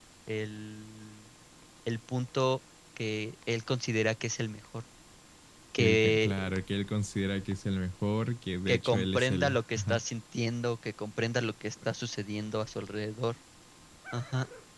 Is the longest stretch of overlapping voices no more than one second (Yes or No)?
No